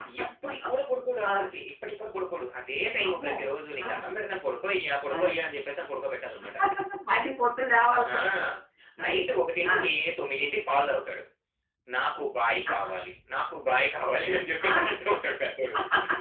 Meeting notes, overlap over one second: none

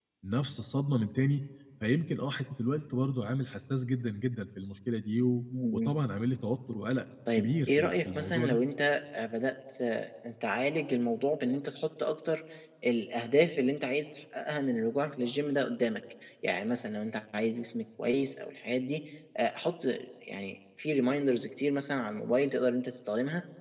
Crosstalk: present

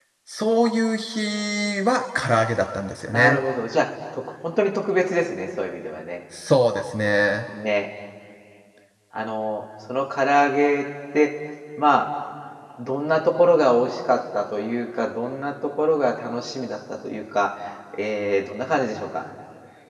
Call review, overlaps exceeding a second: none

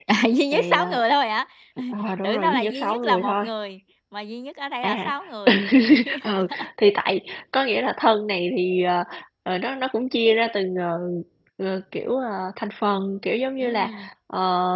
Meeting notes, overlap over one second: present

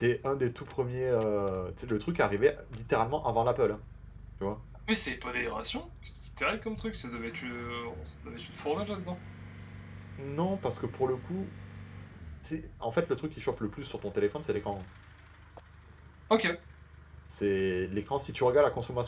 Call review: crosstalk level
none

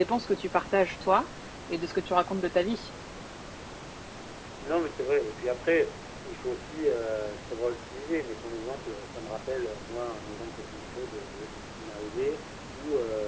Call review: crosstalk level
none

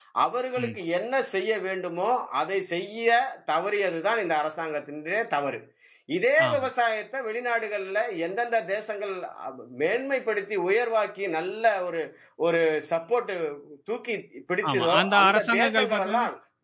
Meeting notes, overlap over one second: present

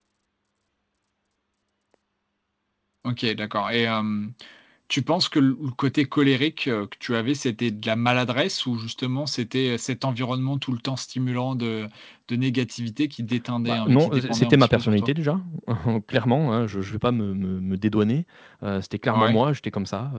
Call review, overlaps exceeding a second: present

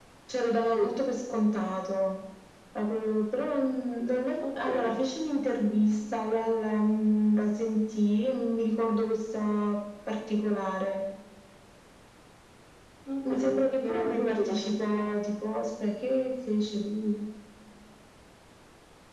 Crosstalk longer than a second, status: present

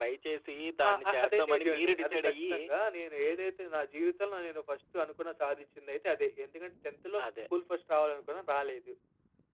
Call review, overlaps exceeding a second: present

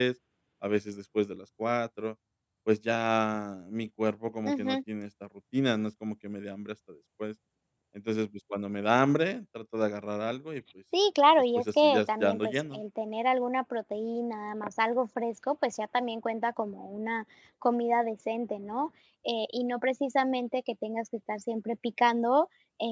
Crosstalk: present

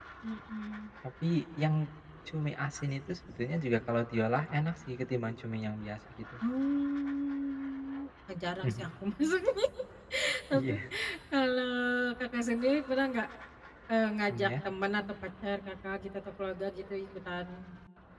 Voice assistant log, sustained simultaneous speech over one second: none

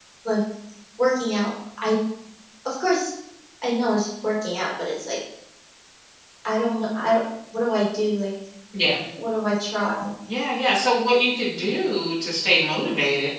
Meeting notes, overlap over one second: none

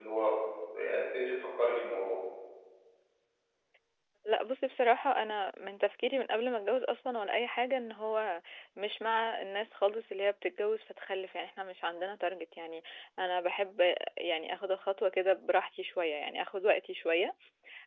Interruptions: none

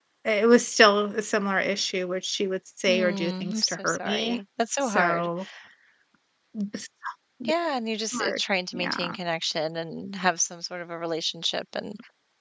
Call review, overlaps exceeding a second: present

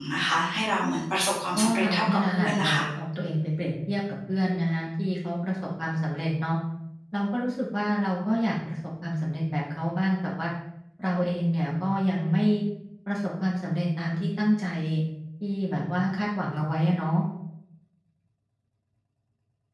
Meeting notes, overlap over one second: present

